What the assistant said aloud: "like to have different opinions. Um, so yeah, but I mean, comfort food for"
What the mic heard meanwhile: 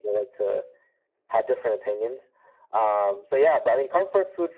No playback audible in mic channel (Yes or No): No